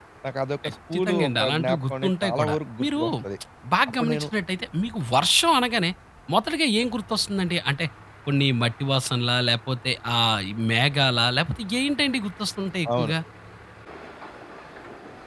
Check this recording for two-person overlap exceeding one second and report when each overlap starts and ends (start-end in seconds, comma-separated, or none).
0.7-3.0